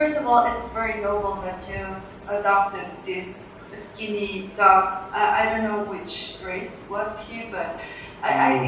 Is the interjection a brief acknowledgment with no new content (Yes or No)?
Yes